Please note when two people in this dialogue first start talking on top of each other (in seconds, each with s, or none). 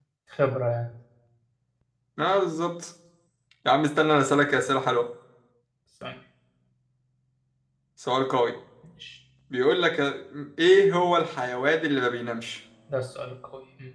none